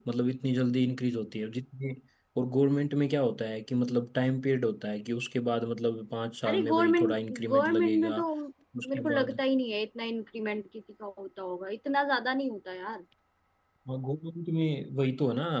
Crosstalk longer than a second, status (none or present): present